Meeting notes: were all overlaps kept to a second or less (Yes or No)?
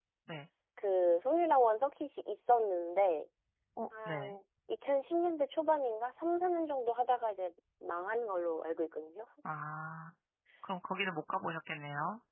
Yes